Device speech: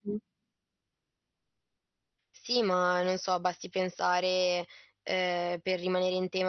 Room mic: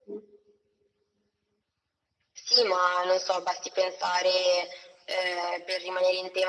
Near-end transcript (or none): none